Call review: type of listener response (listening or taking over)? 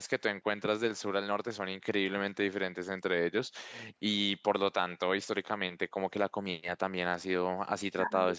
listening